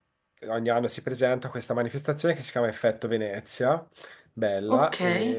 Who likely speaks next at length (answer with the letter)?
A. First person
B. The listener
A